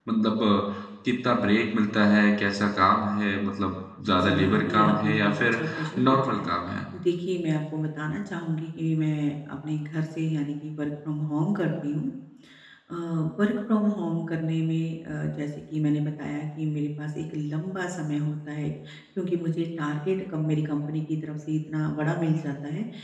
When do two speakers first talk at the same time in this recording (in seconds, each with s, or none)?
4.1 s